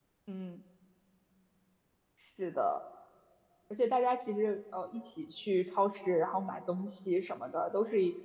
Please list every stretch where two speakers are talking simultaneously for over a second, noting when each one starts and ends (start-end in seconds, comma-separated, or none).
none